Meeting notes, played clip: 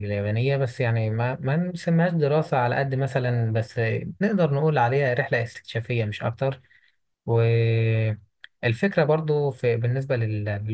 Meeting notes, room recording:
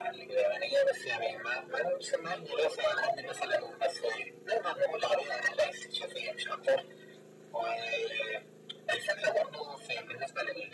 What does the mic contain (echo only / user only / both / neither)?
echo only